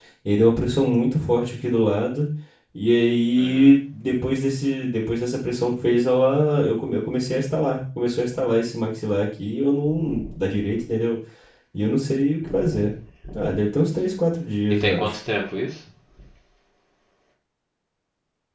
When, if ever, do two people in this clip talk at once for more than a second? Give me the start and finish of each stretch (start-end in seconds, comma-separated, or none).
none